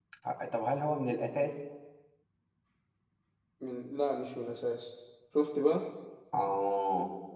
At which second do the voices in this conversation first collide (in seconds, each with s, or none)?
none